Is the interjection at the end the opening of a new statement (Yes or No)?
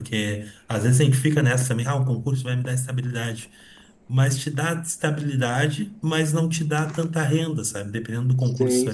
No